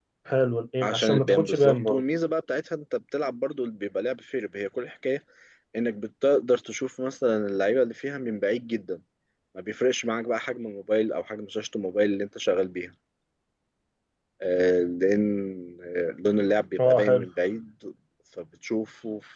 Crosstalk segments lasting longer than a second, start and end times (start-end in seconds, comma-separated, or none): 0.8-2.0